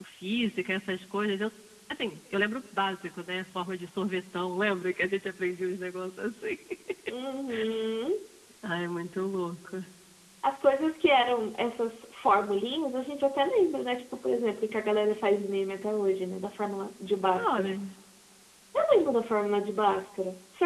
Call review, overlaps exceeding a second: none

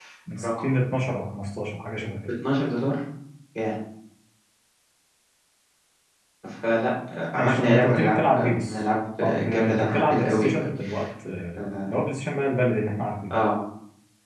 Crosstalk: present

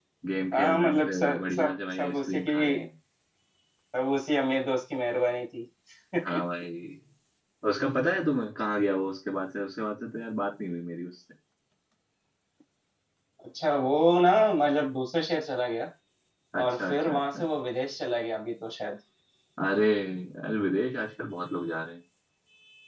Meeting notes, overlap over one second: present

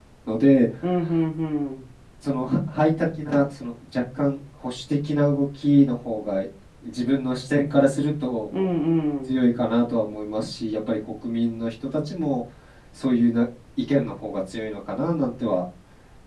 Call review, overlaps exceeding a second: none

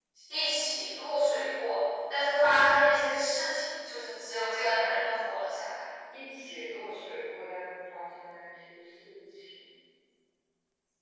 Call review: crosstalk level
none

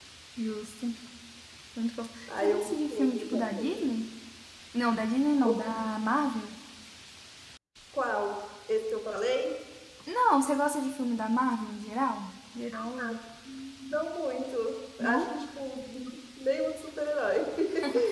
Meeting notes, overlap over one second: present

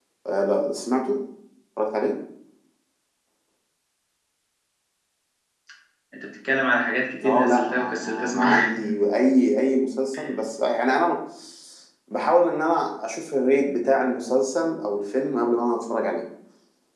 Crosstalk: present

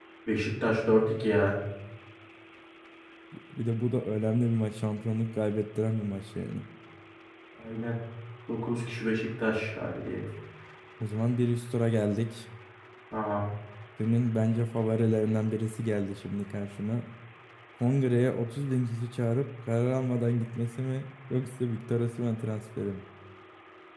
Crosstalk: none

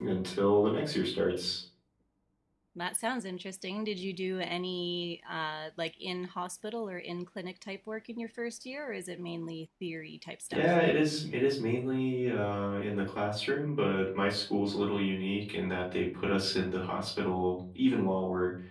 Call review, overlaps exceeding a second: none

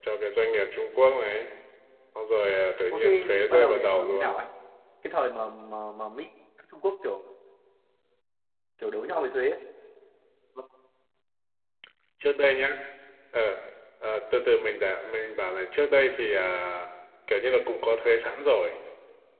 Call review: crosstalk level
present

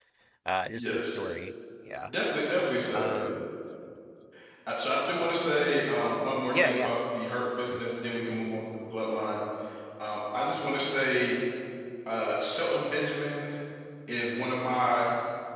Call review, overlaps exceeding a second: none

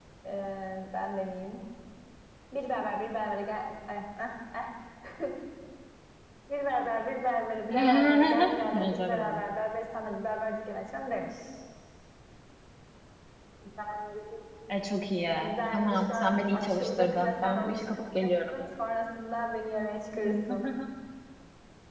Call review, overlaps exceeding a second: present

